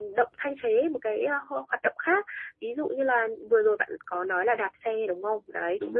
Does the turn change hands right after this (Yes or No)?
No